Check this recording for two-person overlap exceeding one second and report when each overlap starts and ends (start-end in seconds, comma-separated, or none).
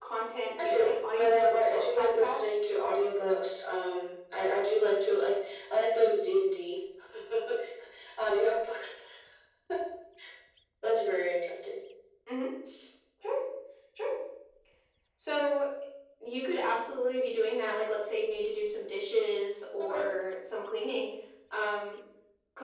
0.6-2.5